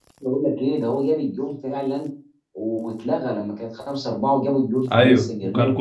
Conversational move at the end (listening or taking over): taking over